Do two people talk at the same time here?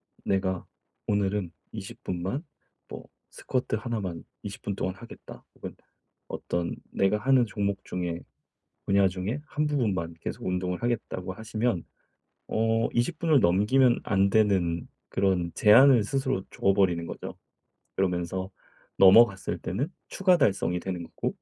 No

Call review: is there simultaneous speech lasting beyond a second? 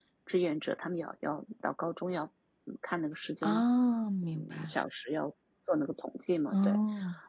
No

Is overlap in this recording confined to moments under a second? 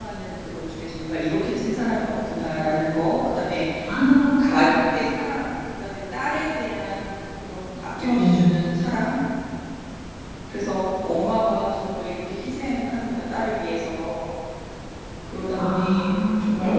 No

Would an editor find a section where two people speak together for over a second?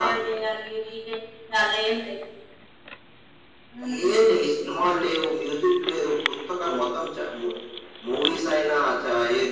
No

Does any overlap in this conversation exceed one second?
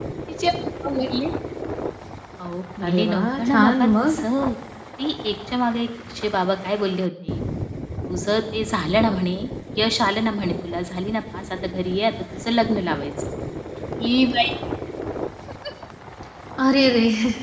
Yes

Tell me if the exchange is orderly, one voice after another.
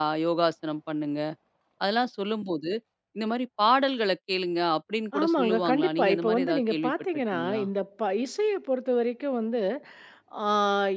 No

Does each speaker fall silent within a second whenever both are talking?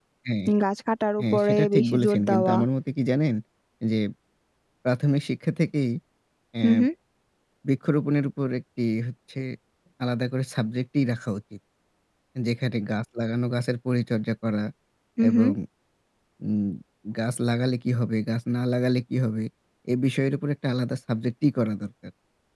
No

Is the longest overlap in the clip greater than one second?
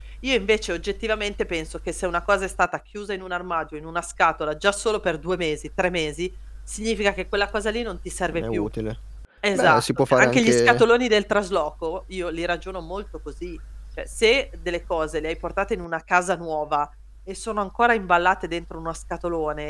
Yes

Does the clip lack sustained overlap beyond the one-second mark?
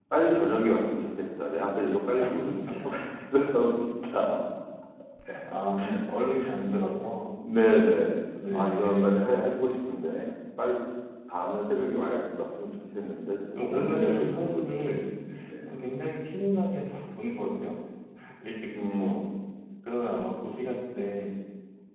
No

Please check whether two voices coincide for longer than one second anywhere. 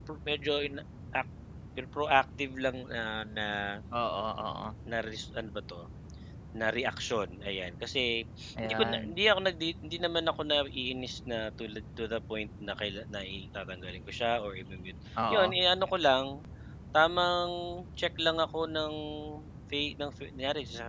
No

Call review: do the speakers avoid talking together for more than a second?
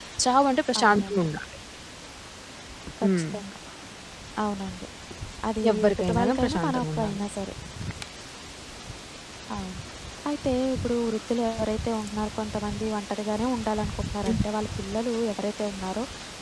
No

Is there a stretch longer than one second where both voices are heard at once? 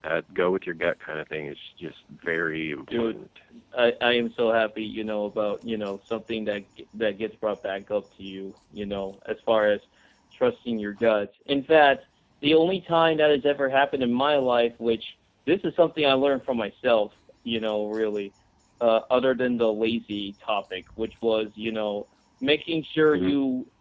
No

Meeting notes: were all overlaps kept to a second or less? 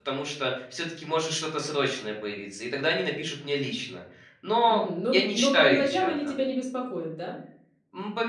No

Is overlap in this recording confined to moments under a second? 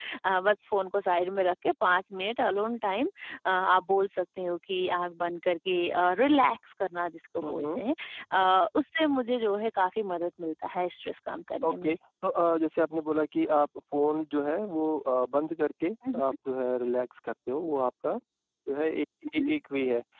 Yes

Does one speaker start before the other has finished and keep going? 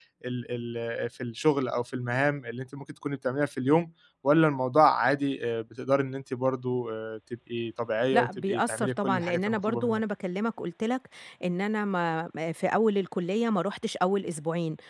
Yes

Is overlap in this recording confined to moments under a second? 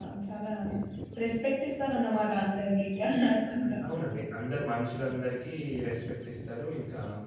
Yes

